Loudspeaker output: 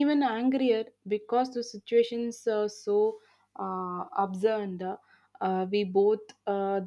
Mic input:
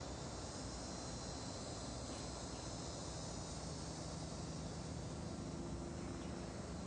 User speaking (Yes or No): No